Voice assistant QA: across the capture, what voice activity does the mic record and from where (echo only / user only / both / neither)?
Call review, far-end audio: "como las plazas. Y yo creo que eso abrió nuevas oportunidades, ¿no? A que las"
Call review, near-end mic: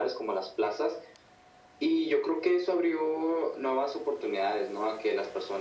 echo only